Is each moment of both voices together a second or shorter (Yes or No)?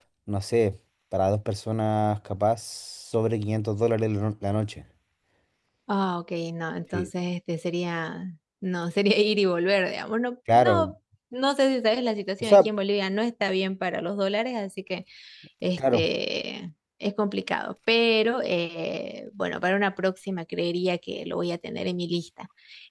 Yes